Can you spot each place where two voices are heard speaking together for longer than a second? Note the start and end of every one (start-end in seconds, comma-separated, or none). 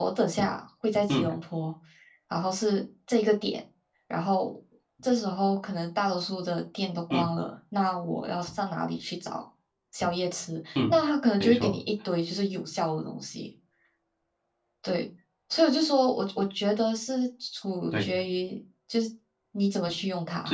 none